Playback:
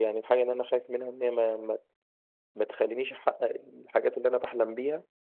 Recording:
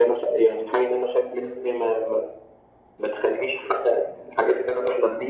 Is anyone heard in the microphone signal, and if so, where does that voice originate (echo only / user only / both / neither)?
echo only